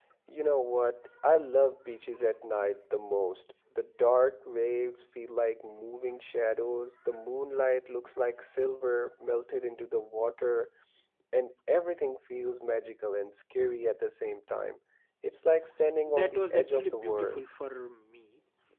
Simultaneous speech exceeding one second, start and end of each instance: 16.1-17.4

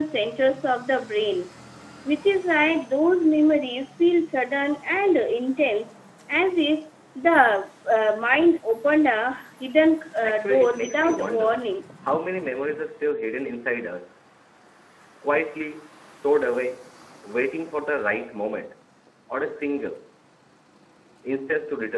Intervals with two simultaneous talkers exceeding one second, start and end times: 10.2-11.6

